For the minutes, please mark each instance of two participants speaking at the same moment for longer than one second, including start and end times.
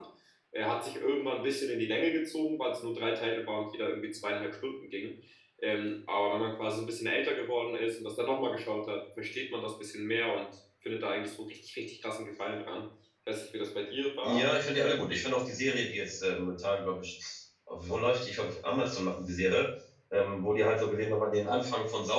none

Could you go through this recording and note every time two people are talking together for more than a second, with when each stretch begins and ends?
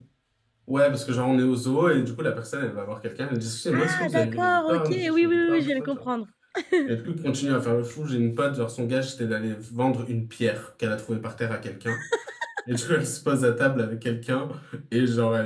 3.7-6.0

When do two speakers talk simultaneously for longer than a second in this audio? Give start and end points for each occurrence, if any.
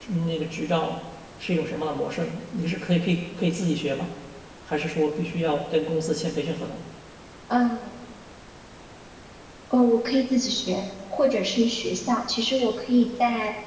none

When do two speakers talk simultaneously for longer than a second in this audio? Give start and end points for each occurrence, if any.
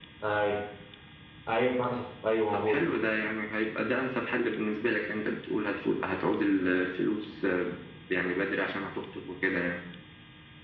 none

